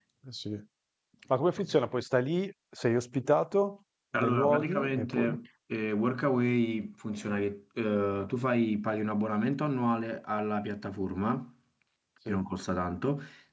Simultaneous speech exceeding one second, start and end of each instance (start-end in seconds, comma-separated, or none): 4.1-5.4